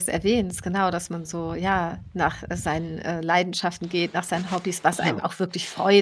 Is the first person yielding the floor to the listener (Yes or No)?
No